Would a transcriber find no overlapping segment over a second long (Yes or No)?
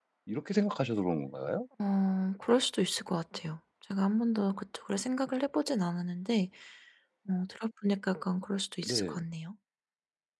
Yes